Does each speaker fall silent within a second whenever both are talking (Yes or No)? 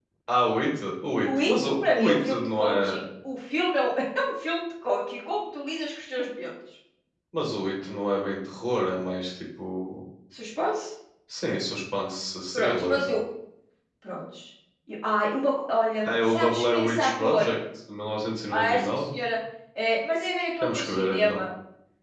No